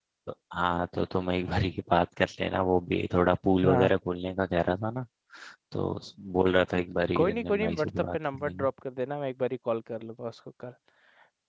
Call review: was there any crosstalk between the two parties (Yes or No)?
Yes